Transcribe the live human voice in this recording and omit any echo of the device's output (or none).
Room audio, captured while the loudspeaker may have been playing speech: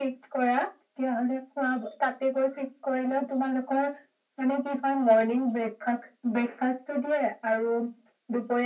none